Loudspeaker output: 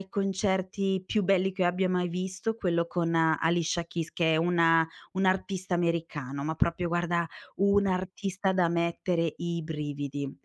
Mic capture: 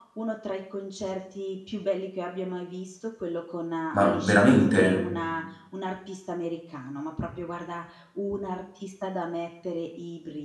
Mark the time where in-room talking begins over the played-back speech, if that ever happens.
3.9 s

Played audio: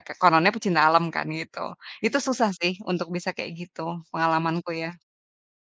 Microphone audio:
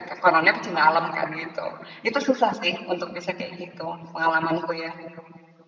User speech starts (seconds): none

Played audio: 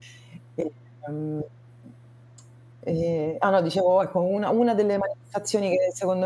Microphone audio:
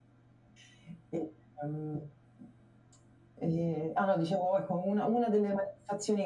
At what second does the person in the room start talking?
none

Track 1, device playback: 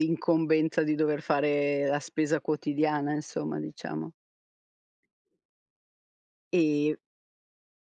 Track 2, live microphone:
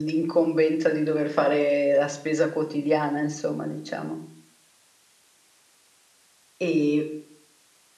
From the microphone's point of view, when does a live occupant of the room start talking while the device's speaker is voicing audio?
none

